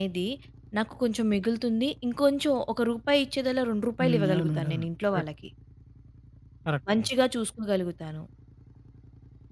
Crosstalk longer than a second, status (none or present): present